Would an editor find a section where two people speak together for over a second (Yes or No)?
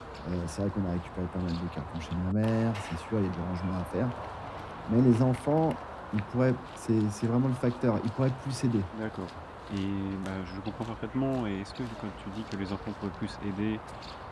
No